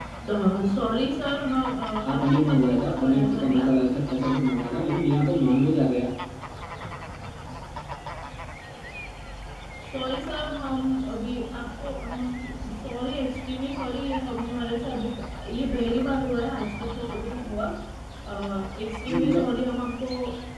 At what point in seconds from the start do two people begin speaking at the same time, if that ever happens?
2 s

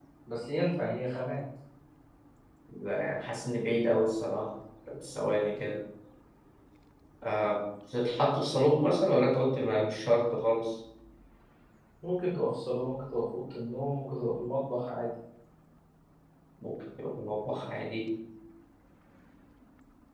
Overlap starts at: none

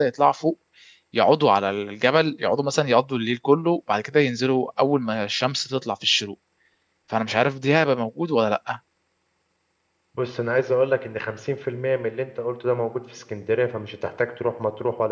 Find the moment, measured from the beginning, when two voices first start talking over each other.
none

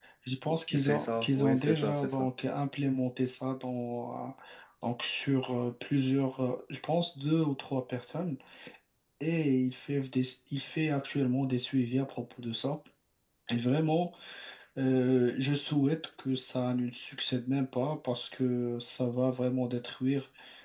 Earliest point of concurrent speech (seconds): 1 s

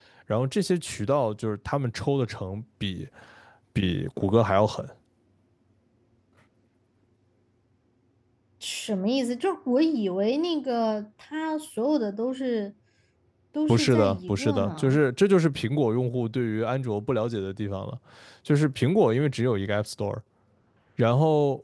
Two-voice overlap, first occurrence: 14 s

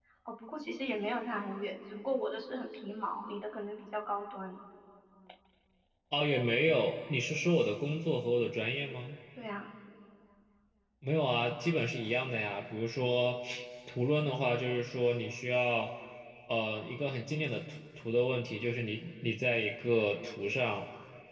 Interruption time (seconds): none

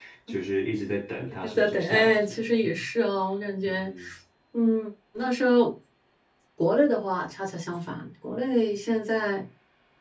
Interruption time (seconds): 1 s

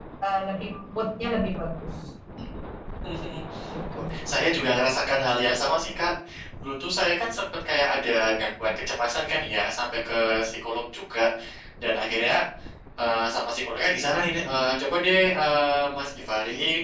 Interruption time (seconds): none

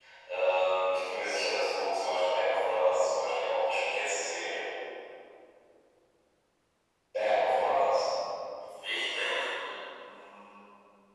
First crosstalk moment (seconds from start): none

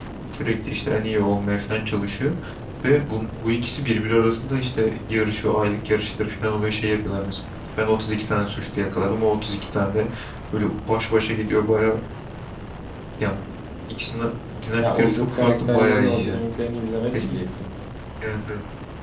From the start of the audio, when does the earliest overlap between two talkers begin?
15 s

